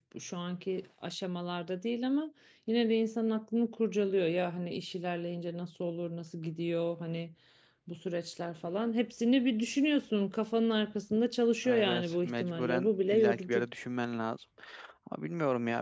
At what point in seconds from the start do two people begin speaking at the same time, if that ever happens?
11.6 s

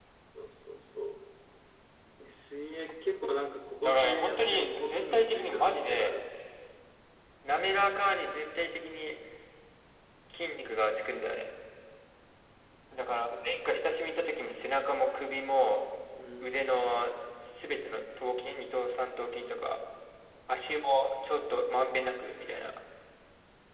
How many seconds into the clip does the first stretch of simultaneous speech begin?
3.8 s

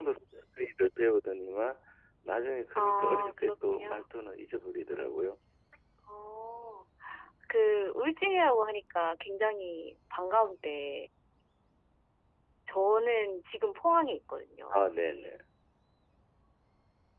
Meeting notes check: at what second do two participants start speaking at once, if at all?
2.8 s

